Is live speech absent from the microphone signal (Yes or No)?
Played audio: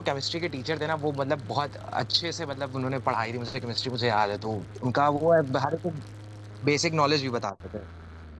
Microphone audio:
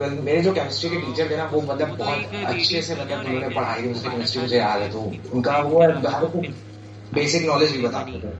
No